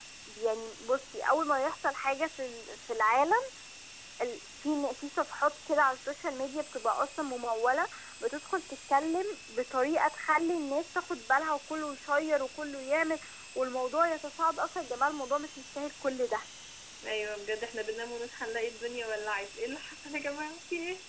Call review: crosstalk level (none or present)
none